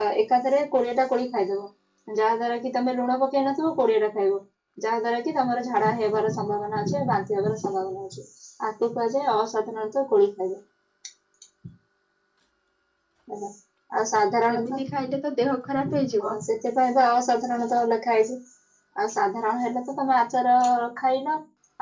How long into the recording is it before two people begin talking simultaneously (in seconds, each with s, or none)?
14.5 s